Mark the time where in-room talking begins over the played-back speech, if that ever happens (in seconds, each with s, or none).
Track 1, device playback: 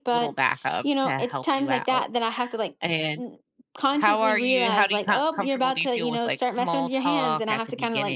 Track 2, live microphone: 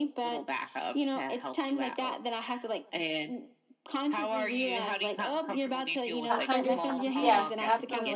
6.2 s